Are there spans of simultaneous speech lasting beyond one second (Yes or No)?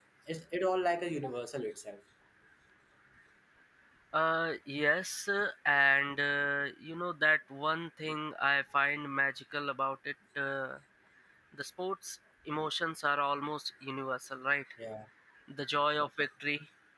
No